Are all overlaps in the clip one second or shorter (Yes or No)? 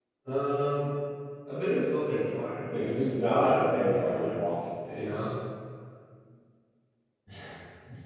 No